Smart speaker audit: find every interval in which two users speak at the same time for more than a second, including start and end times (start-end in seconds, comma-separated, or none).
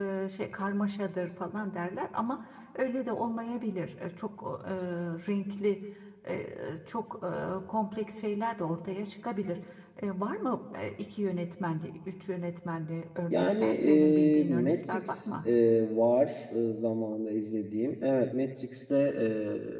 13.3-15.4